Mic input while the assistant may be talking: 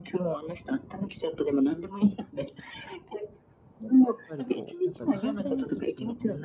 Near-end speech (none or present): present